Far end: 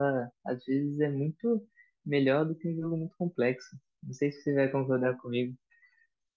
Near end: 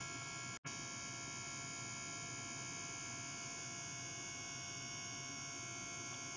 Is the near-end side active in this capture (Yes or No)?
No